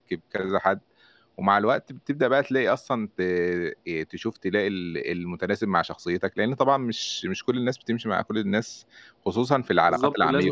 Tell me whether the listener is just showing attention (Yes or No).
No